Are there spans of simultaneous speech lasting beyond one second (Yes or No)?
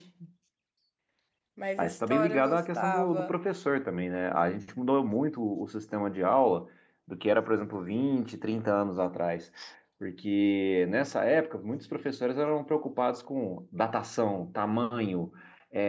Yes